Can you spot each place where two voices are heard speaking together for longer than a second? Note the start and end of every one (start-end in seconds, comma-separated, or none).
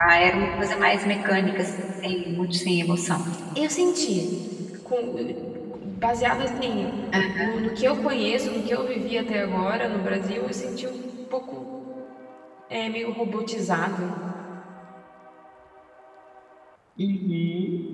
none